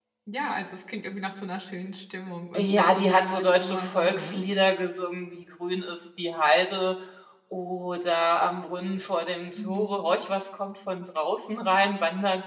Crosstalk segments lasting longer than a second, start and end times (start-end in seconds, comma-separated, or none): 2.6-4.4